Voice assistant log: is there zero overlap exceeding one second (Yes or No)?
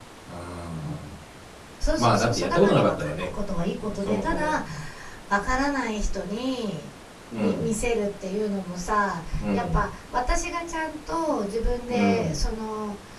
No